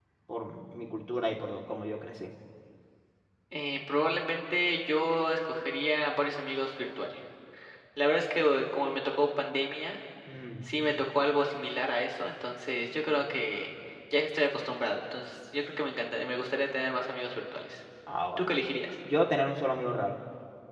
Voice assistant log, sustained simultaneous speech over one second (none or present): none